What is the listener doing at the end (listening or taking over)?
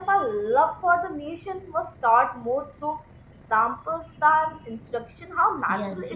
taking over